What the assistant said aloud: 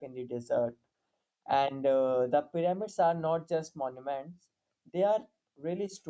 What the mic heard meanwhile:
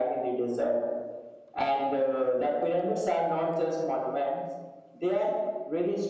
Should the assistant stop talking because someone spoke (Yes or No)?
No